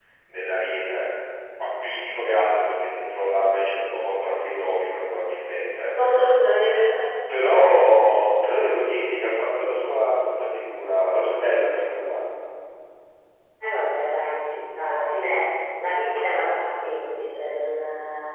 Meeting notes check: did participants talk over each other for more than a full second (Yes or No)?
No